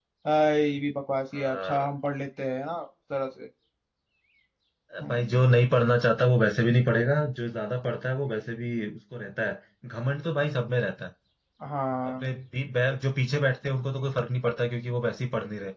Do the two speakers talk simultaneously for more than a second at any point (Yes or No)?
No